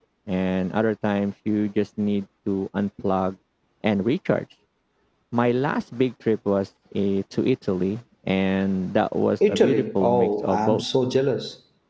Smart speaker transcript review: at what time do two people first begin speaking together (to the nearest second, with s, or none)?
9 s